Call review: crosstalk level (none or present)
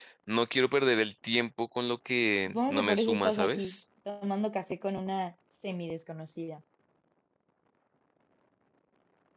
present